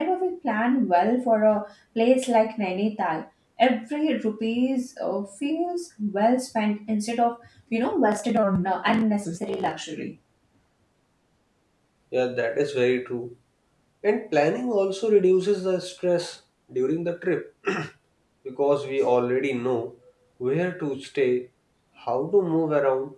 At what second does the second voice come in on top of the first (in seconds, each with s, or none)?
none